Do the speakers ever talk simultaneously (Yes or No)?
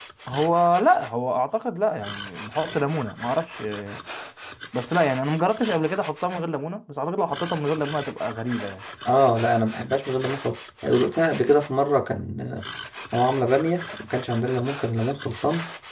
No